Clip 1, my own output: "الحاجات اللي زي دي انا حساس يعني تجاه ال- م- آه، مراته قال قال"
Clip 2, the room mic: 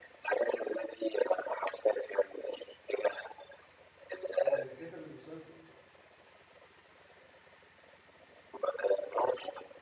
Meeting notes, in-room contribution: present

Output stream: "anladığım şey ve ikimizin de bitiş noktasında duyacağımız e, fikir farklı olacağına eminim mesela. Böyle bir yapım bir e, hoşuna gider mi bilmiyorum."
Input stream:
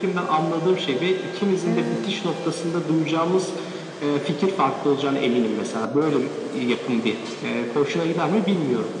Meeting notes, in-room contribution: present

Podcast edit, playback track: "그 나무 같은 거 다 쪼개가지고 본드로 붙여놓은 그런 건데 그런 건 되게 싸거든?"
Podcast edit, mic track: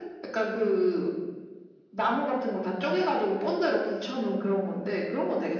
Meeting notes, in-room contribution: none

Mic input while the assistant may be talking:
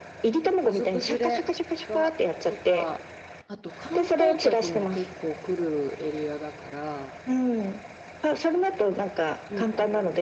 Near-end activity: present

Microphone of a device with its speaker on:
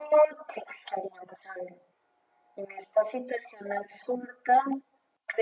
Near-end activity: none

